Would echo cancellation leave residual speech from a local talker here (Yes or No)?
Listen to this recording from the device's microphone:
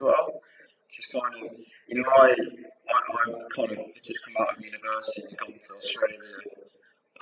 No